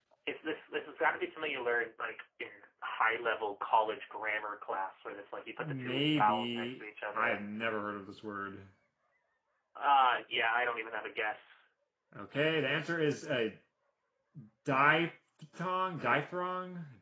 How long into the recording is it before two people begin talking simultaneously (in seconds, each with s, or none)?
5.6 s